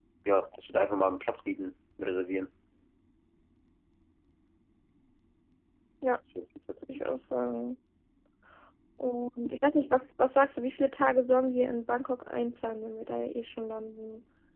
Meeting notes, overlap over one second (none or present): none